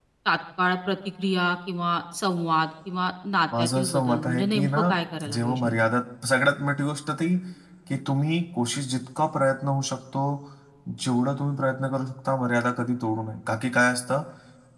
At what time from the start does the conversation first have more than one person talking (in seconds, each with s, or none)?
3.6 s